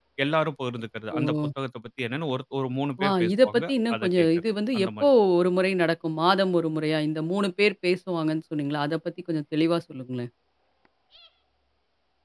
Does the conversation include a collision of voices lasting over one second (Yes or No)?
Yes